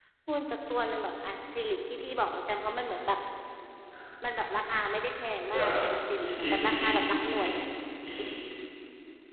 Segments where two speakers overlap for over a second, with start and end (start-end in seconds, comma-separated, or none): 6.2-7.4